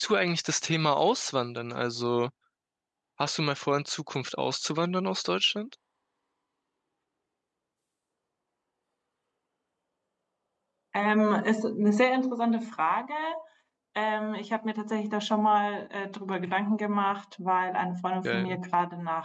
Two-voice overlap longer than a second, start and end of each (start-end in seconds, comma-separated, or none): none